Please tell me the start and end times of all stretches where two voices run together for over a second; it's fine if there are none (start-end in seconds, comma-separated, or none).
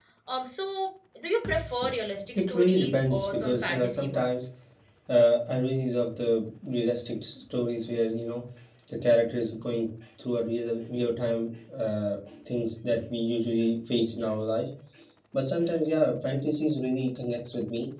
2.4-4.5